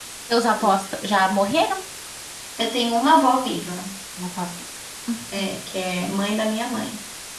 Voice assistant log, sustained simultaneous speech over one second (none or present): none